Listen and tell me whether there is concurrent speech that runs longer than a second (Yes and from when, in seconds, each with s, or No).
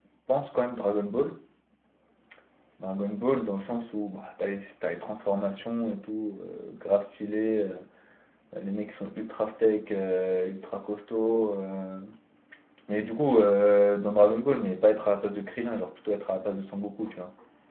No